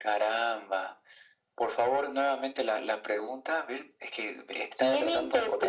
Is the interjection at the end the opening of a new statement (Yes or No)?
Yes